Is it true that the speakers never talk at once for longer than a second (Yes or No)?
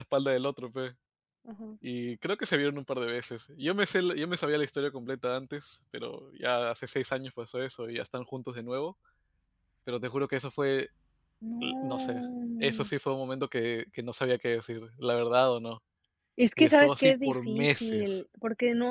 No